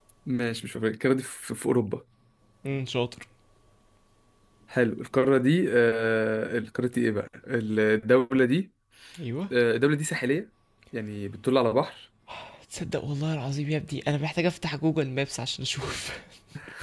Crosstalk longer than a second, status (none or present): none